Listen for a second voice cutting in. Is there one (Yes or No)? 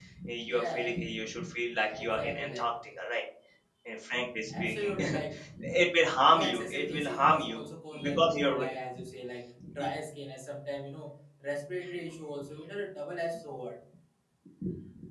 Yes